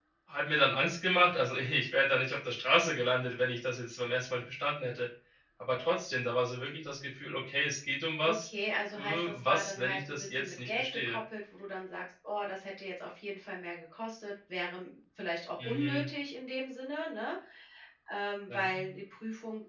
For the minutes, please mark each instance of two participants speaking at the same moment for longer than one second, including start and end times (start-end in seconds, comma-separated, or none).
9.0-11.2